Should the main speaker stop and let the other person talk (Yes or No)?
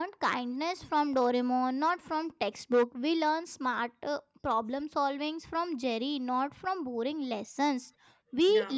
No